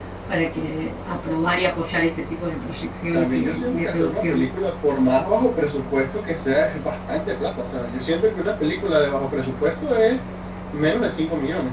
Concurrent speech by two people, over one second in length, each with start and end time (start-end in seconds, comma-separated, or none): 3.1-4.5